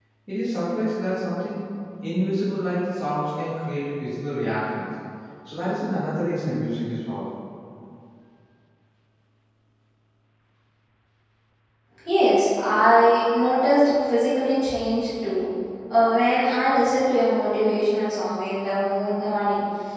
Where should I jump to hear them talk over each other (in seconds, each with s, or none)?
none